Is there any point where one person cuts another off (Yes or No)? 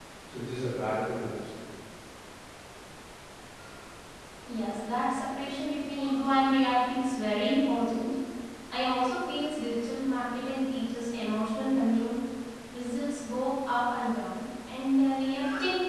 No